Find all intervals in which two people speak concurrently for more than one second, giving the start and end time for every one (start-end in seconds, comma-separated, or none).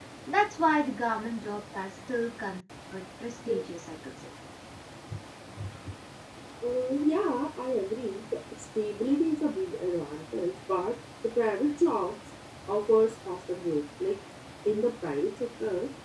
none